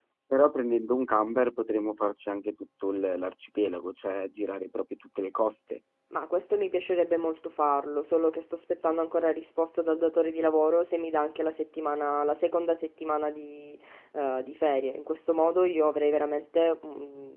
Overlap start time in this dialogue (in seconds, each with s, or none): none